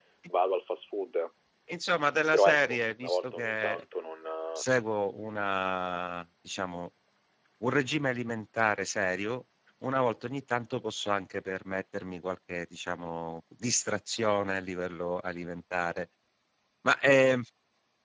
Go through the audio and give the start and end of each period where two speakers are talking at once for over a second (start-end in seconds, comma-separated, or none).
2.3-3.8